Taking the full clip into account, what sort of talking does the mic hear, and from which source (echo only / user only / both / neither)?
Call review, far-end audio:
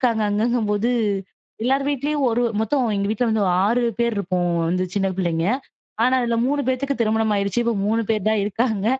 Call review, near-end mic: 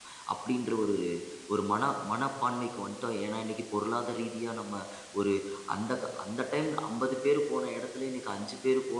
user only